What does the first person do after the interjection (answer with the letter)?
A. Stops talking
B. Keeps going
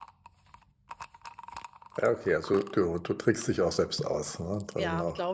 A